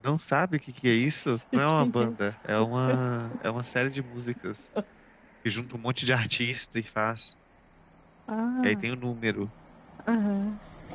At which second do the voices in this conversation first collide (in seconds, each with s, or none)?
0.9 s